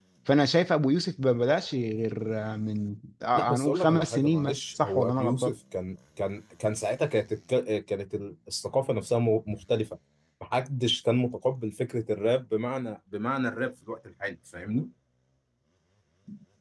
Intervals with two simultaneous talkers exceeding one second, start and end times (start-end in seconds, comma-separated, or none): 3.3-5.5